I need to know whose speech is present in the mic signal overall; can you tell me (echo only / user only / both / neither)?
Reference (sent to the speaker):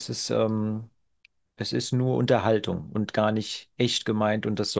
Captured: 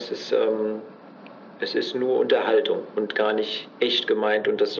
echo only